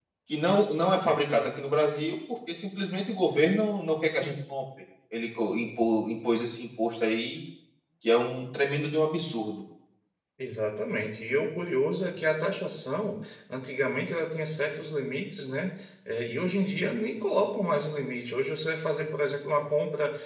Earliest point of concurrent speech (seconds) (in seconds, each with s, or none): none